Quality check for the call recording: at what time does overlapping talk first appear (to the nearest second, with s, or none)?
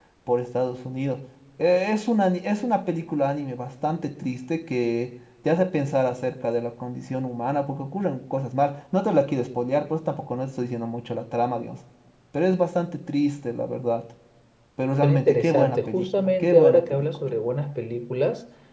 15 s